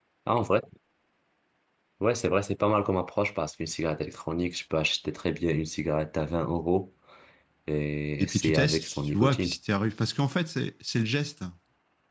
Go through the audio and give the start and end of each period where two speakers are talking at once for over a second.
8.2-9.5

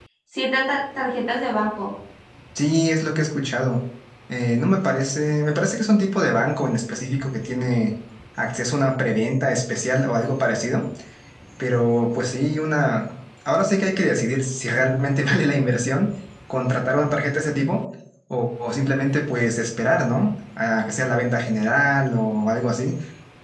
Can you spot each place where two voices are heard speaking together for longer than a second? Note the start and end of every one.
none

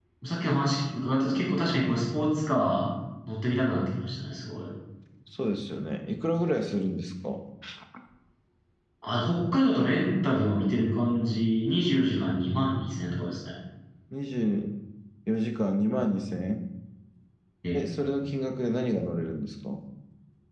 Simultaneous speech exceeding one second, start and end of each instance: none

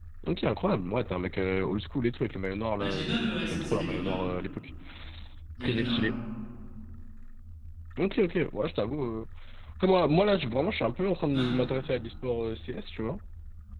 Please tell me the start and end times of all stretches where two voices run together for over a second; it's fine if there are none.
2.8-4.2

